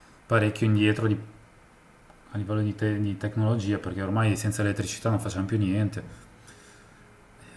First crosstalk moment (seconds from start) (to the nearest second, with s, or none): none